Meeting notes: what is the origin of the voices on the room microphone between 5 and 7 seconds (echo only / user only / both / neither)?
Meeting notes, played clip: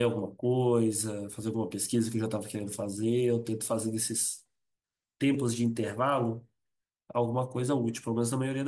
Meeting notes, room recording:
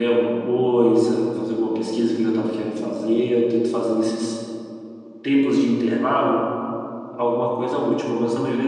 echo only